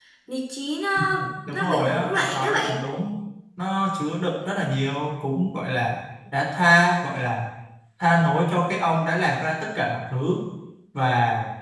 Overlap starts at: 1.5 s

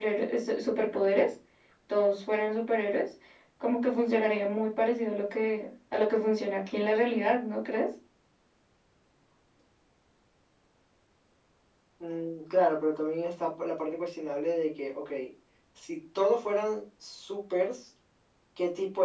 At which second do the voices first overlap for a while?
none

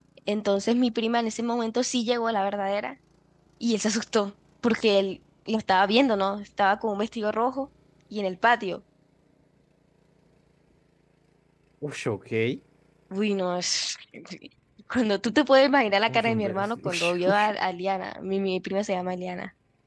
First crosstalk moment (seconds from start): 16.1 s

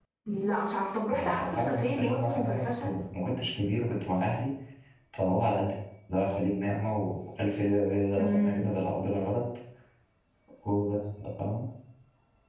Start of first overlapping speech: 1.1 s

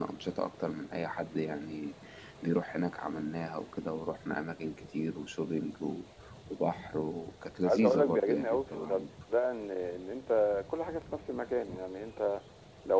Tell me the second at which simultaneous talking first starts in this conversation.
7.6 s

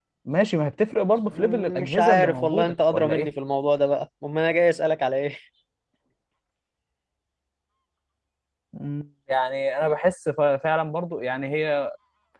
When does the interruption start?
1.3 s

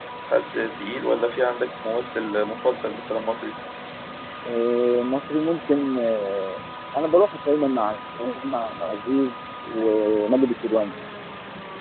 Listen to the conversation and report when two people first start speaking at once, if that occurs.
none

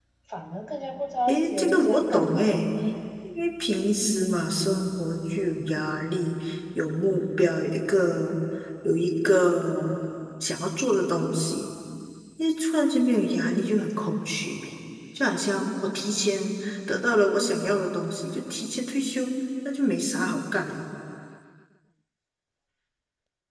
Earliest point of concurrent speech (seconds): 1.3 s

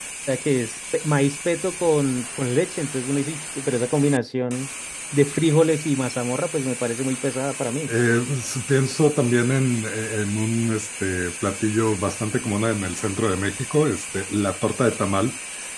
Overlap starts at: none

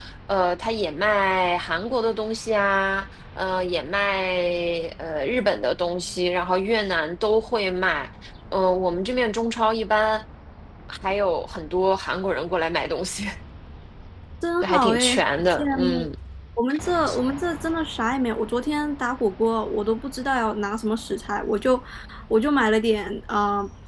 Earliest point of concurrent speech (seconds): 14.6 s

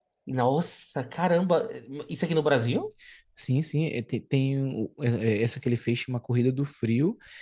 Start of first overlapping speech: none

